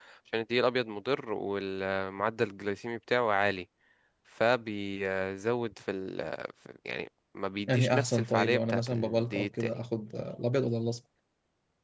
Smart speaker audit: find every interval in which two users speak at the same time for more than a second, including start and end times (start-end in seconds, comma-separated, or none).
7.7-9.7